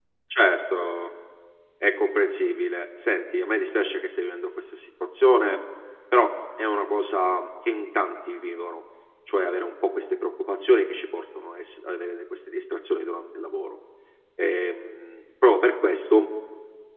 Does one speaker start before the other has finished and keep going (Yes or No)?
No